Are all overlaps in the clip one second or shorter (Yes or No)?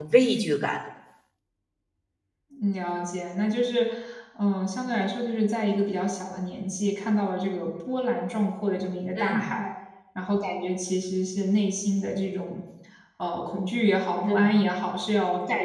Yes